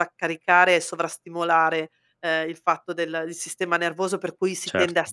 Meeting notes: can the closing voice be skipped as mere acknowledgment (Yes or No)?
Yes